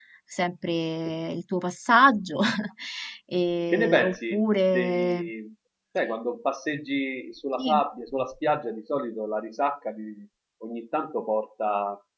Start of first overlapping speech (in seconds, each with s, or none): 3.7 s